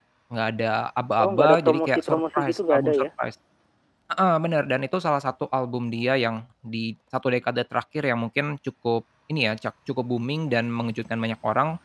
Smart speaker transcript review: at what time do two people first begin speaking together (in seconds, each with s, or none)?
1.2 s